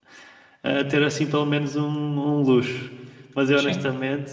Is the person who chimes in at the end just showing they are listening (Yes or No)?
Yes